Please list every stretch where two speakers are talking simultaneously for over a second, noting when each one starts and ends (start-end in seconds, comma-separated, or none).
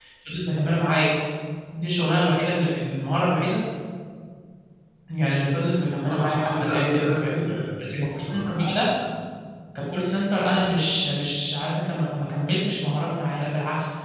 6.0-7.4